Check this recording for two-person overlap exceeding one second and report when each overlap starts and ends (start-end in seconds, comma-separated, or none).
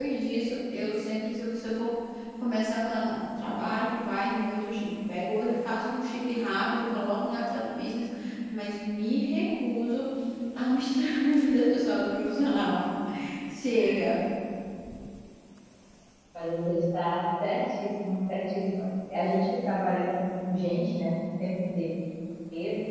none